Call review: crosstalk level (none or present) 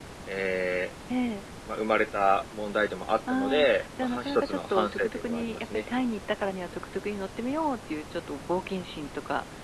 present